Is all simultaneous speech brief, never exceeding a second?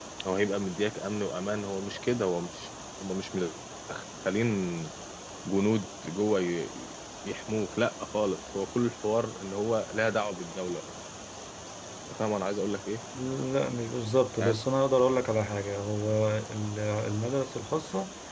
Yes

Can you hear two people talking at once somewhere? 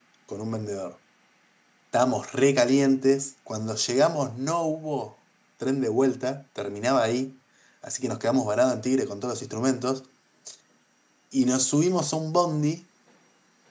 No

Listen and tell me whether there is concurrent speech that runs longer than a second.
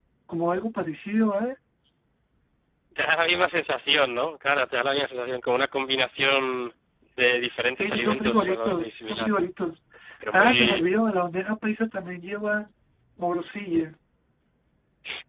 Yes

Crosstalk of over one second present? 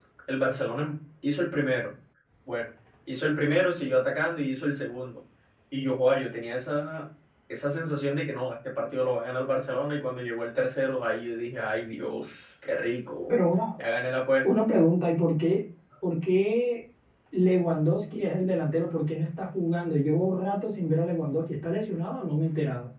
No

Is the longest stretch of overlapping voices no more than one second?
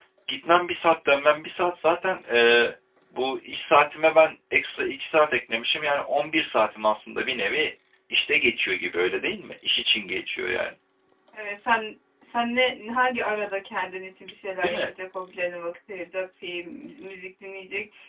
Yes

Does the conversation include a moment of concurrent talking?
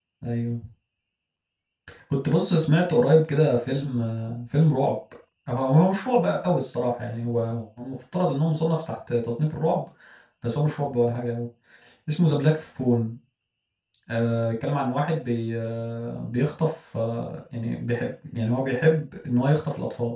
No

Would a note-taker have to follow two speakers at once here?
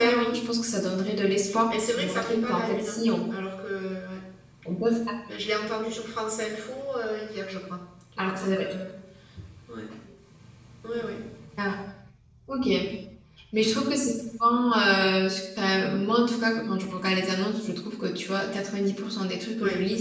Yes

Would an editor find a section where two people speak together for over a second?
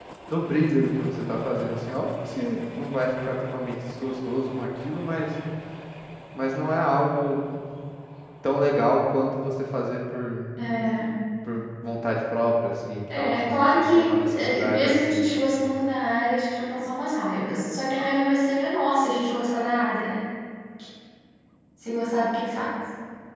Yes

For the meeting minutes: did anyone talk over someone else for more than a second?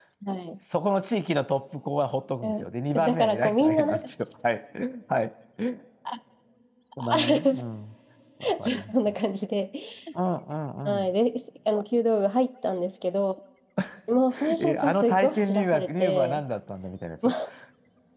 Yes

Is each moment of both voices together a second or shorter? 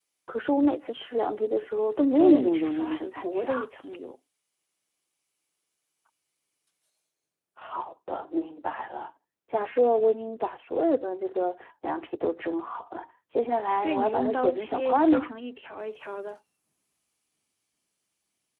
No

